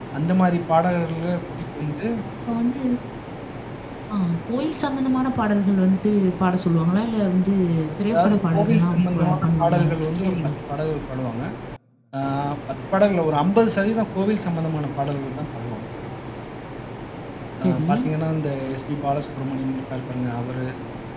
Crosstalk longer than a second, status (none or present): present